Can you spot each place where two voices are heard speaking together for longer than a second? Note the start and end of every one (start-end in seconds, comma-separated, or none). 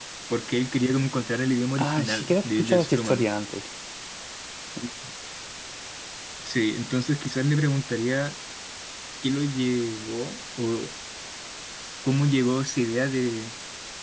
1.8-3.3